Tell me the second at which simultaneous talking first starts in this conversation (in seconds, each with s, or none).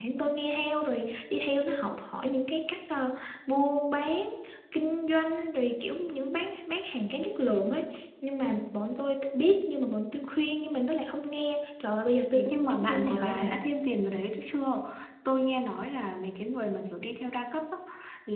12.3 s